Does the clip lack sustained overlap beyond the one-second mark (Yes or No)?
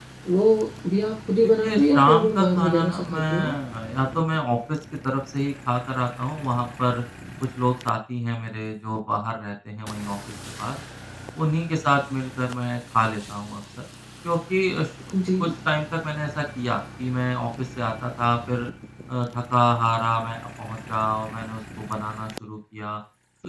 No